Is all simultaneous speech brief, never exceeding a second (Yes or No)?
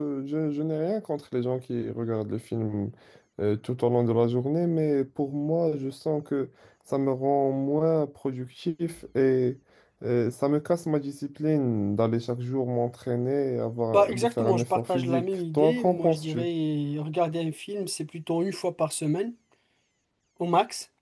No